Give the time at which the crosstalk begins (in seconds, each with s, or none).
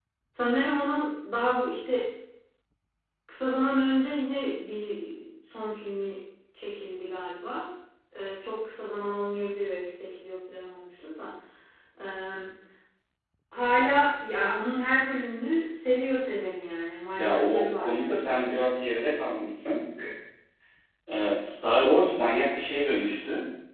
17.2 s